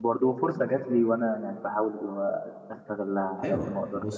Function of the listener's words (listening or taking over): taking over